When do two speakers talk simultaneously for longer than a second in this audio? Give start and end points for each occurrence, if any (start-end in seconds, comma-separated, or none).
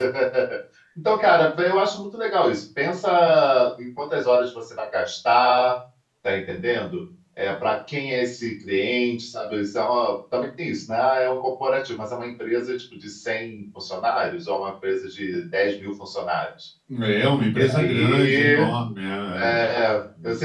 17.4-18.7